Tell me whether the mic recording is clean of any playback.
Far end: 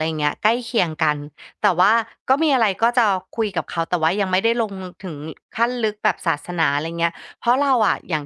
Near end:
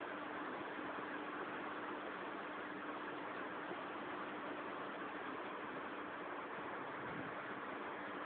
Yes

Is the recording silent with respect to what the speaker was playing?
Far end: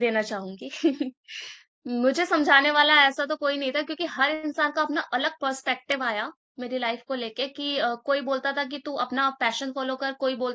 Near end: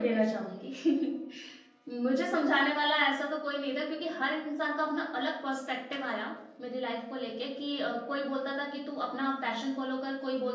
No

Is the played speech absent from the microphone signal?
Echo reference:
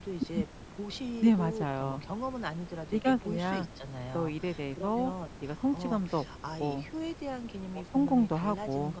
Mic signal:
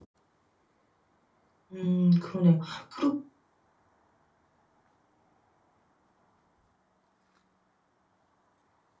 Yes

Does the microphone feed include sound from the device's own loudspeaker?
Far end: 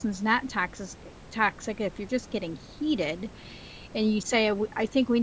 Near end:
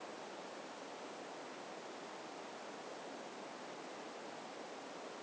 No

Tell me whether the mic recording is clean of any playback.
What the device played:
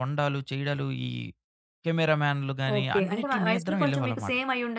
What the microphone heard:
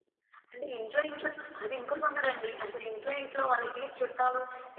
Yes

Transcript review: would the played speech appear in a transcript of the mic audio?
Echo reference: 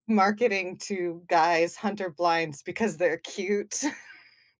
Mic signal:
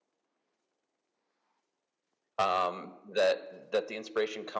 No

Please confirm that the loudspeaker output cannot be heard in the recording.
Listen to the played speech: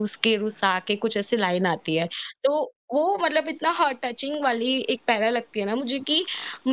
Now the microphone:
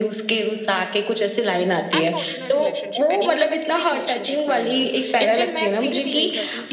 No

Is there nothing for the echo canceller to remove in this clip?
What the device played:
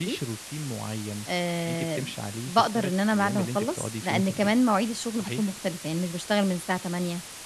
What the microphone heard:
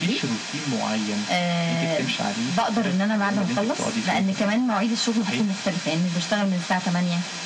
No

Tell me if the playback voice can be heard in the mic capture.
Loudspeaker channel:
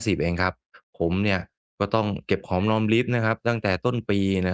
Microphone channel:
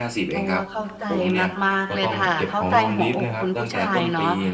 Yes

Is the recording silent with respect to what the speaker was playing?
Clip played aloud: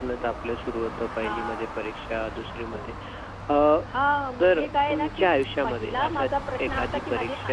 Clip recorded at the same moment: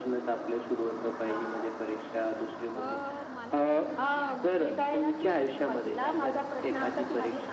No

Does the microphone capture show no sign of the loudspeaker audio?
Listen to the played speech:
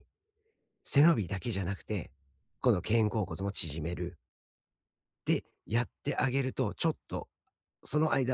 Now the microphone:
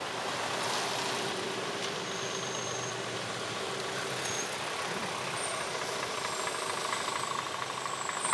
Yes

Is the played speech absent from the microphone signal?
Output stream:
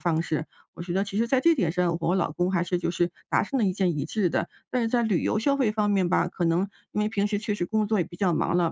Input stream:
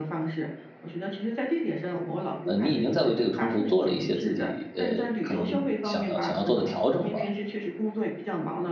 No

